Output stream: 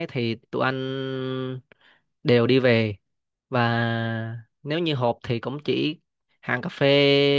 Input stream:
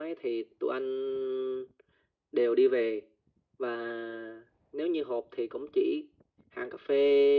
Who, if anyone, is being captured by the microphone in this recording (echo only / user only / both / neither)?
echo only